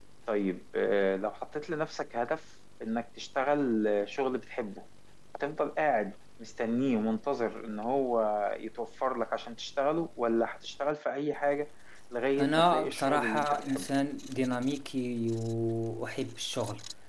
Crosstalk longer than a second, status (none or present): present